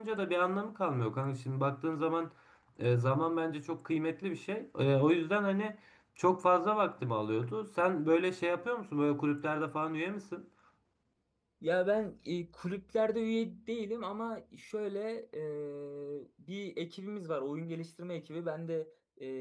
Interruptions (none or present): none